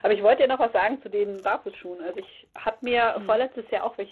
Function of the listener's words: listening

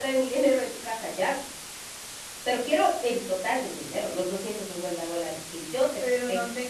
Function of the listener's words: taking over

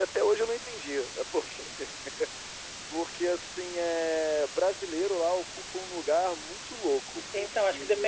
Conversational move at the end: taking over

